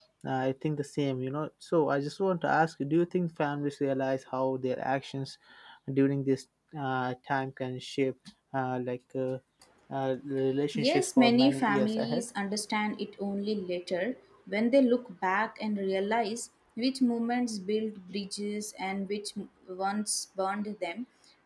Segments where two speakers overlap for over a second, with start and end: 10.7-12.2

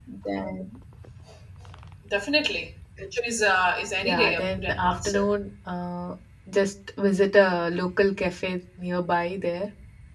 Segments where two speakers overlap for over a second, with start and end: 4.0-5.3

